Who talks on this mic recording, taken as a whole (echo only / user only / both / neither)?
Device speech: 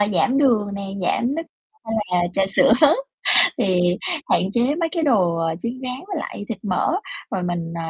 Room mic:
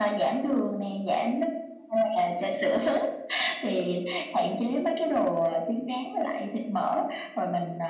echo only